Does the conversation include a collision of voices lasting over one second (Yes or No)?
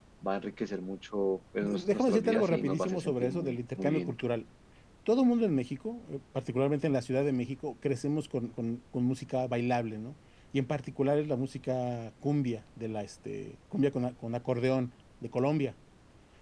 Yes